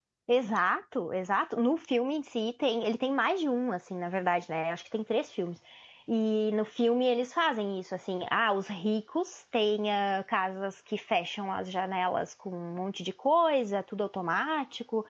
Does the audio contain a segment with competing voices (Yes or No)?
No